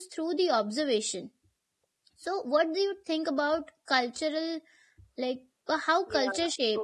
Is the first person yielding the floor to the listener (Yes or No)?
Yes